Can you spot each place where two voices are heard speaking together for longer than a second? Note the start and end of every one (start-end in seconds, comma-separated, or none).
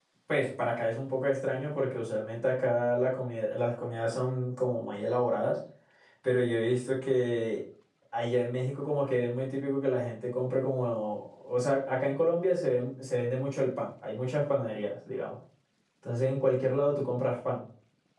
none